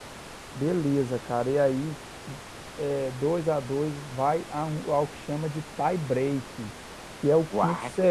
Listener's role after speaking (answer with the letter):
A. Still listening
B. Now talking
A